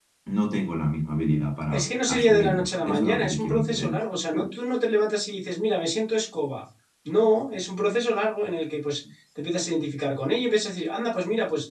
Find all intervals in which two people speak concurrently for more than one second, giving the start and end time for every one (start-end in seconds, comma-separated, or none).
1.7-4.0